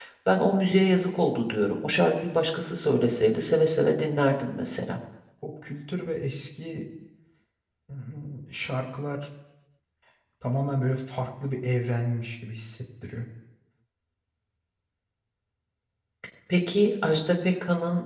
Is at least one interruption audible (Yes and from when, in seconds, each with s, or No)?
No